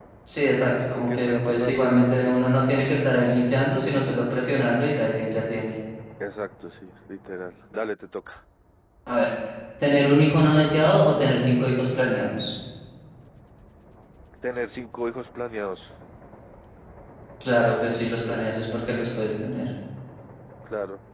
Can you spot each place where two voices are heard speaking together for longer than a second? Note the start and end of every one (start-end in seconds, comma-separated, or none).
1.0-2.4